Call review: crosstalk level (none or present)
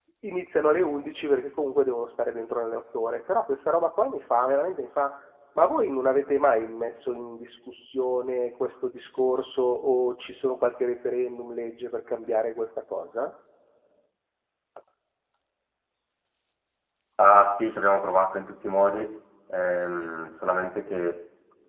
none